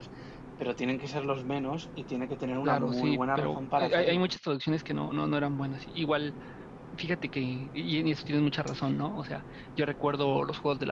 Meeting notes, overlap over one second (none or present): present